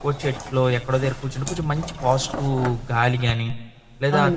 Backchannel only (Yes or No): Yes